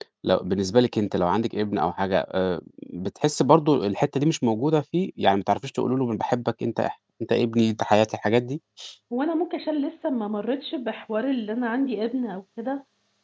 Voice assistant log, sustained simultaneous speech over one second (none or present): none